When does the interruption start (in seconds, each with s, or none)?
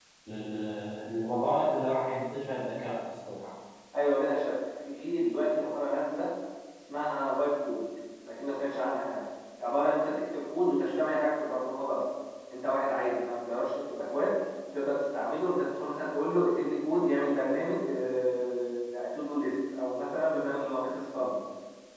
none